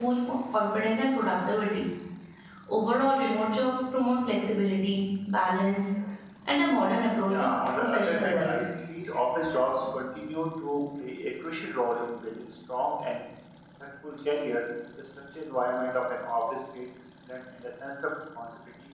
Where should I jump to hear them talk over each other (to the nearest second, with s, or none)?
7 s